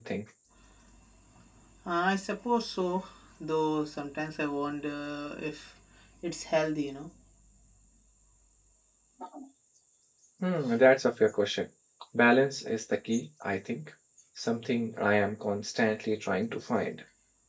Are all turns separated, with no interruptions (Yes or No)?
Yes